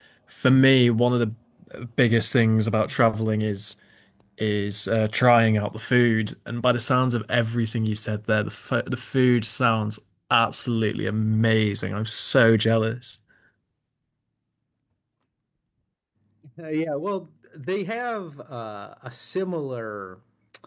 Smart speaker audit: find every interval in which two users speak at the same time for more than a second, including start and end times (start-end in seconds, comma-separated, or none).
none